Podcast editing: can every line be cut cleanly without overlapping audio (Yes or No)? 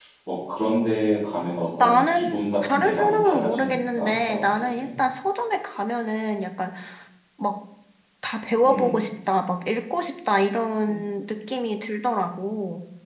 No